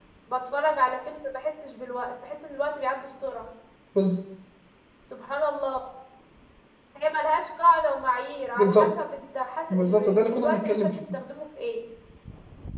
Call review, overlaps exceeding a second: present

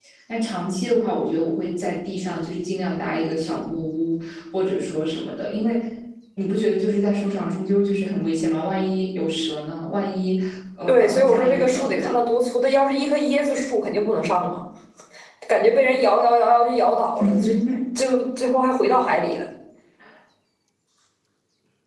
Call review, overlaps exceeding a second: present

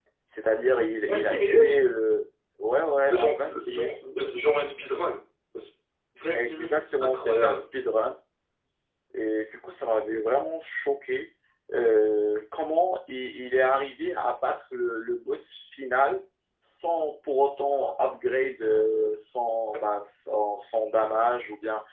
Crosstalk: present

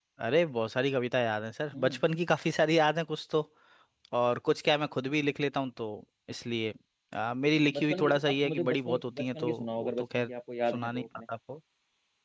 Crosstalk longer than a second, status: present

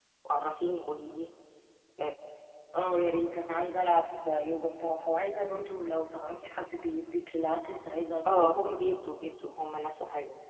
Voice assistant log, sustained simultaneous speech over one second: none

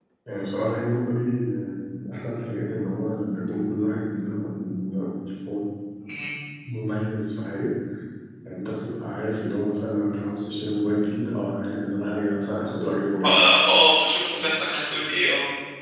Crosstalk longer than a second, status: none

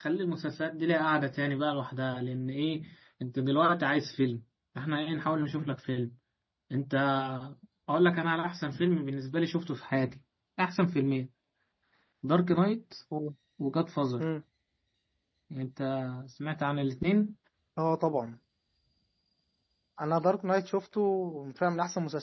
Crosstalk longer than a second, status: none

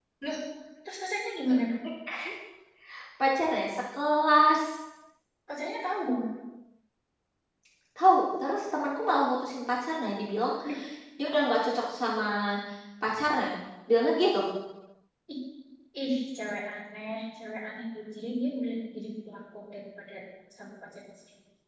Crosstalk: none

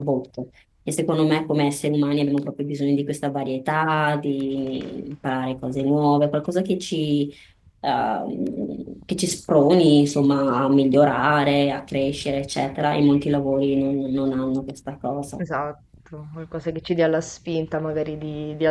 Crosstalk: none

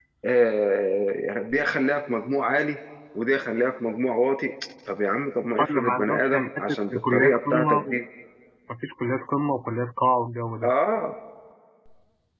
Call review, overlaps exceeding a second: present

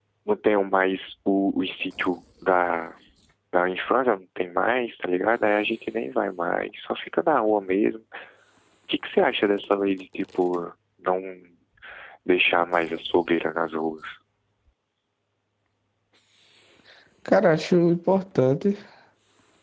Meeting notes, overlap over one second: none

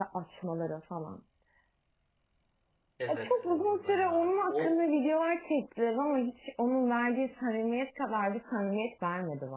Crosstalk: present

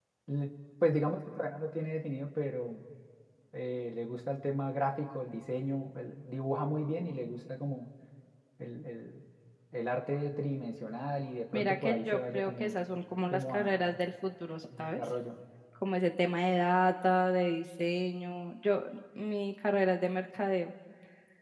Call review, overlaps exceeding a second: present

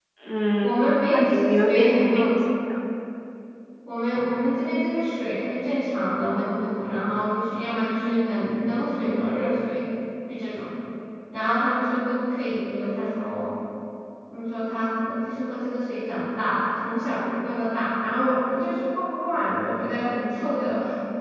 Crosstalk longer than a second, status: present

